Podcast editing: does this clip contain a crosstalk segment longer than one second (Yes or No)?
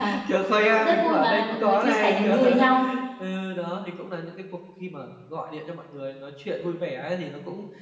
Yes